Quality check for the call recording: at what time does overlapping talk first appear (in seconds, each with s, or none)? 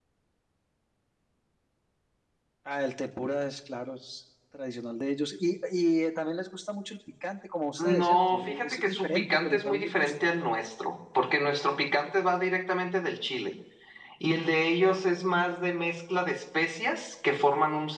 7.8 s